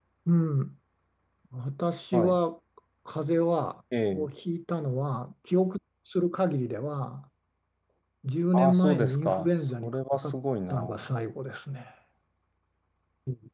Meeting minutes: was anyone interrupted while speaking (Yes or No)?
Yes